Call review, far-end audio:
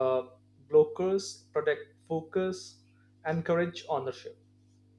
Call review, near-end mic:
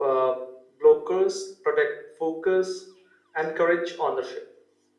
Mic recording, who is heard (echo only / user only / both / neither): echo only